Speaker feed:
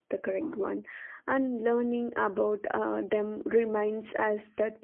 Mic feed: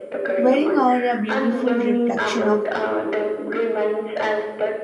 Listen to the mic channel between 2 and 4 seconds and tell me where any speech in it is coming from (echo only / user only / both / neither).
both